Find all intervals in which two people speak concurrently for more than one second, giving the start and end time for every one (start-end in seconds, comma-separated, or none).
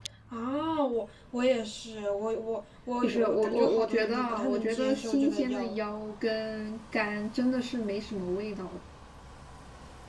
3.0-5.8